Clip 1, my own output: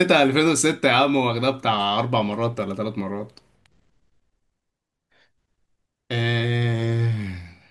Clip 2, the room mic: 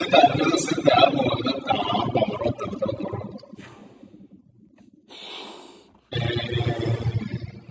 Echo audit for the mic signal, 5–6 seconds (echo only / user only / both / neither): neither